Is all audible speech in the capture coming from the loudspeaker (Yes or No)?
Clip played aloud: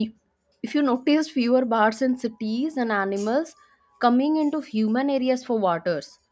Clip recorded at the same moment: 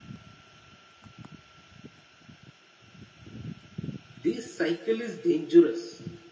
No